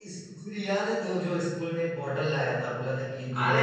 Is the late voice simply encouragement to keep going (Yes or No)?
No